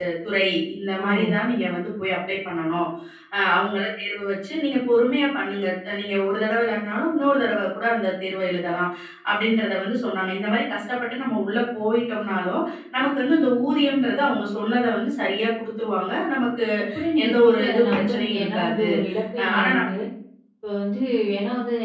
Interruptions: present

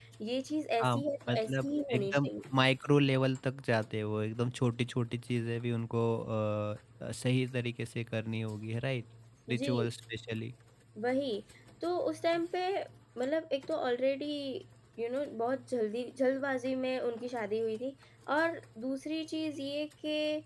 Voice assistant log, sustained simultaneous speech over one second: present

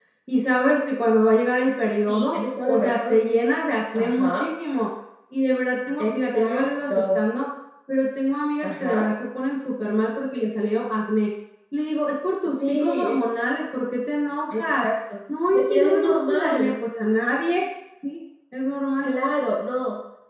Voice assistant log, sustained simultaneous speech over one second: present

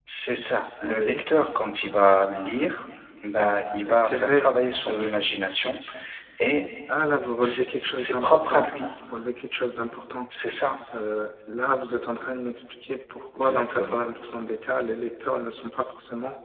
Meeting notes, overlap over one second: present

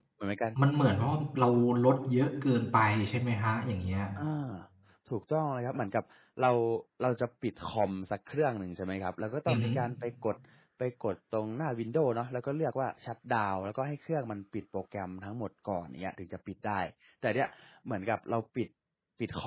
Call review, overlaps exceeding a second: none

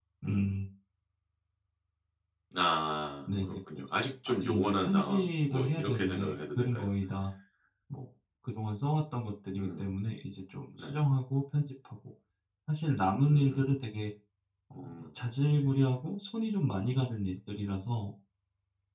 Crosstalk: present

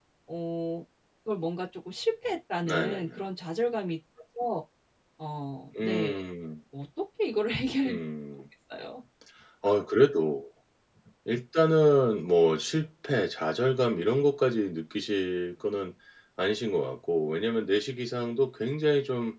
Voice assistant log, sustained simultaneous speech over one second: none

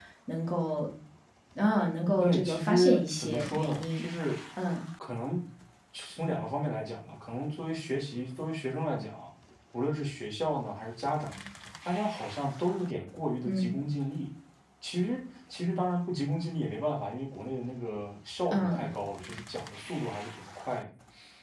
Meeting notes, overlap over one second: present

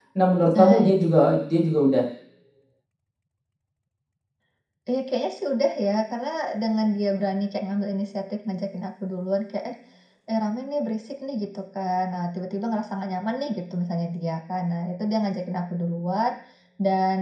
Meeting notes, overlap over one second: none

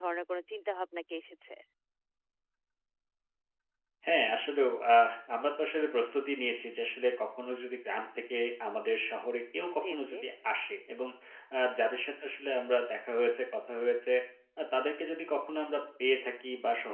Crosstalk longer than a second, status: none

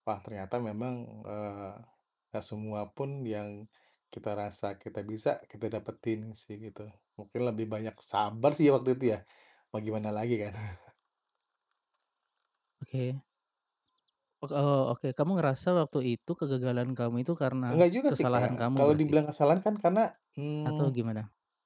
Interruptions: present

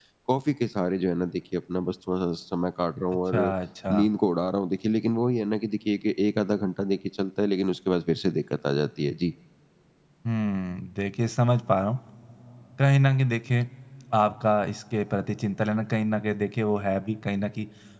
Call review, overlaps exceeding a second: none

